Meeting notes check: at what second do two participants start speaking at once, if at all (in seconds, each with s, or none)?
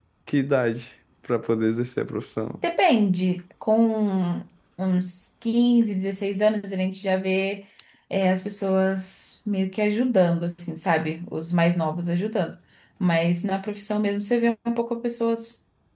none